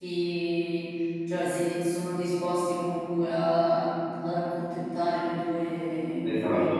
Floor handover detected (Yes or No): Yes